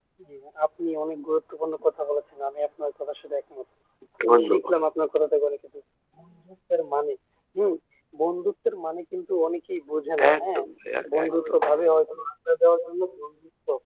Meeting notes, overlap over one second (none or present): none